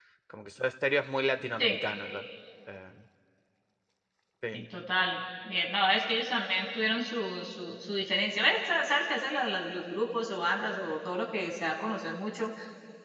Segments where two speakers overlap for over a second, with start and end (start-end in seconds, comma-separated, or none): none